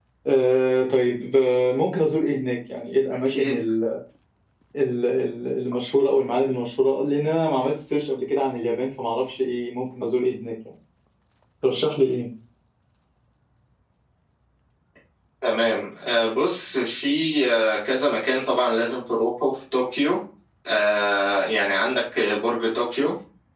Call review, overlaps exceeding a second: none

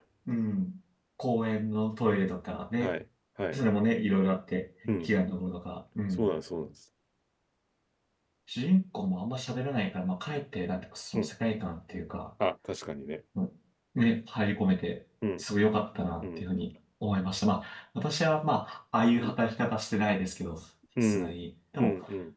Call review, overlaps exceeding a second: none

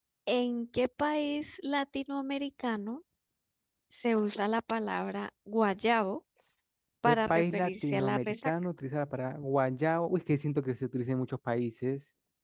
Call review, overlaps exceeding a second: present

